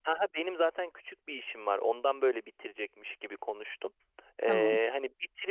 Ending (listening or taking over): listening